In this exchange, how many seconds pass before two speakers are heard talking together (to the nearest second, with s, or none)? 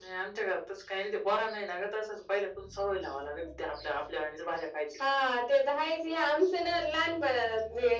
none